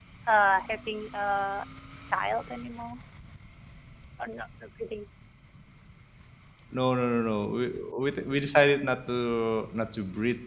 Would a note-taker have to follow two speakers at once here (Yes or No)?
No